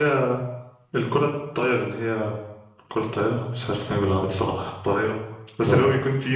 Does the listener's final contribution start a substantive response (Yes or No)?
No